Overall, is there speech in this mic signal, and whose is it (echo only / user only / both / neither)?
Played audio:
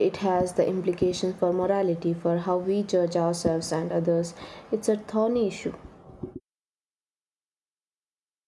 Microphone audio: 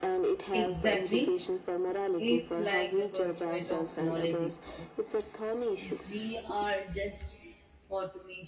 both